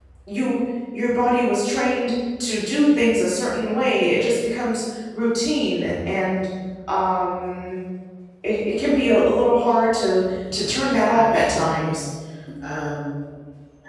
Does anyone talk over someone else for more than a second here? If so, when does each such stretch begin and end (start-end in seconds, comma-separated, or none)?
10.5-12.0